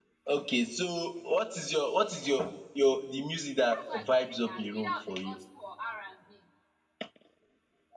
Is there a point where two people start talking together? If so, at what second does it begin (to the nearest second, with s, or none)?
4 s